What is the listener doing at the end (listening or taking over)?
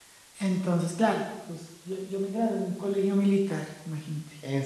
listening